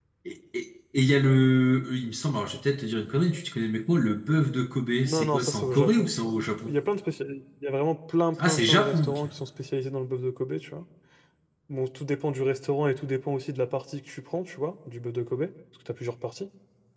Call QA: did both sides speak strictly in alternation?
No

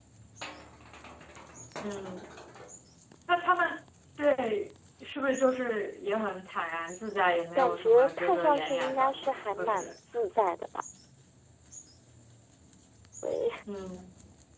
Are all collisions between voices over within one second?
No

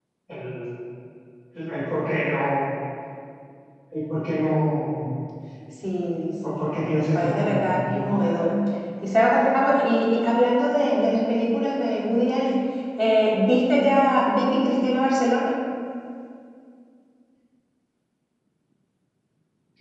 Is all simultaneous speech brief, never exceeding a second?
No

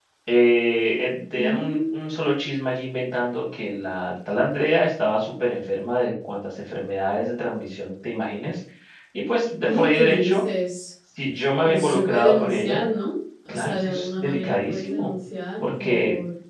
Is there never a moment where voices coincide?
No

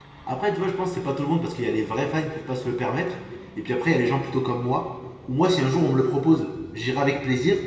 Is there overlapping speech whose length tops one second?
No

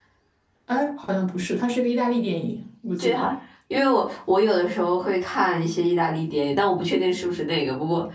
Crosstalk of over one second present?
No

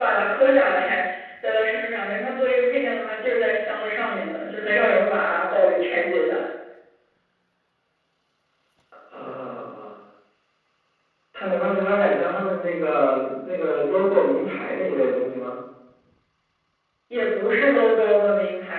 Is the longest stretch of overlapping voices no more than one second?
Yes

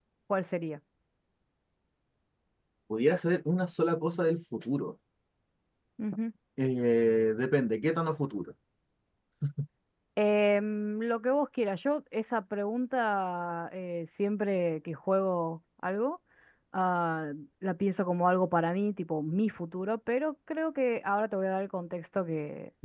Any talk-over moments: No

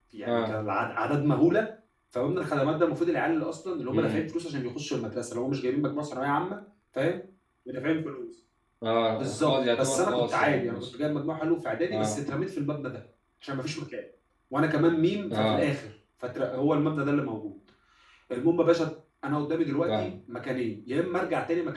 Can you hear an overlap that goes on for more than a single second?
Yes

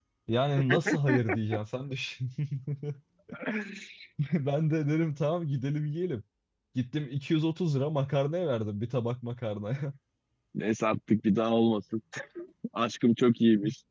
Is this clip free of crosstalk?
Yes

